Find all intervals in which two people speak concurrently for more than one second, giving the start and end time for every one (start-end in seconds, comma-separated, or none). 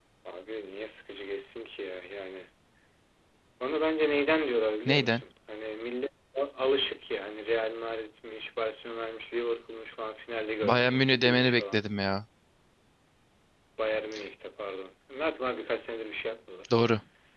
10.6-11.8